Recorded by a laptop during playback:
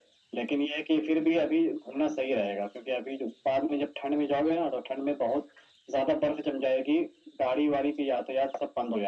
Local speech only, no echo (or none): none